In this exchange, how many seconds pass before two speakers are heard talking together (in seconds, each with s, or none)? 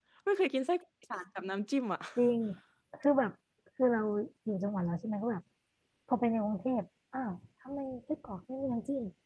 none